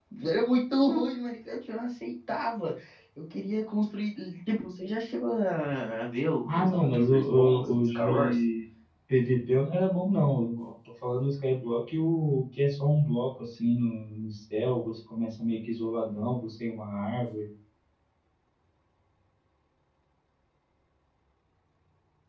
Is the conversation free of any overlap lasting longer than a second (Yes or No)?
No